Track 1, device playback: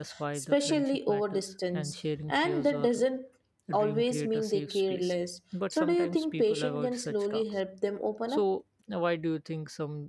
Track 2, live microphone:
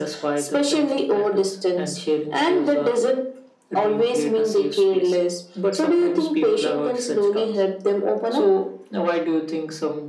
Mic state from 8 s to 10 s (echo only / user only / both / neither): echo only